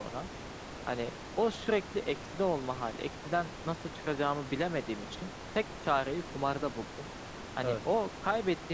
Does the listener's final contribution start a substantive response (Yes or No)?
No